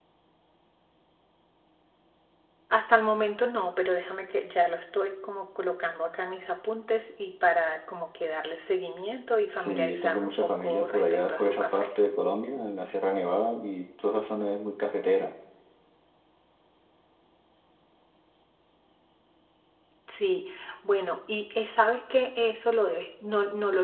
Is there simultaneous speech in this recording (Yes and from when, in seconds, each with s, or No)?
Yes, from 9.7 s